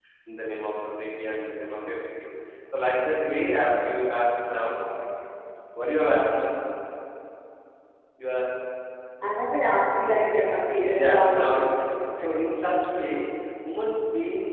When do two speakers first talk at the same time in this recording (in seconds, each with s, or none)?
11.0 s